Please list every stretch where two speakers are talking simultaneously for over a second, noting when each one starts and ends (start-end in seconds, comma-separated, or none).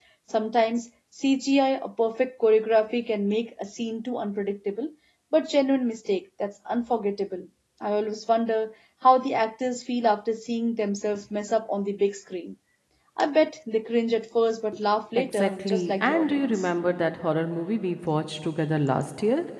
15.2-16.6